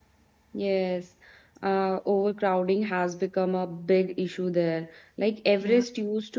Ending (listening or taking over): listening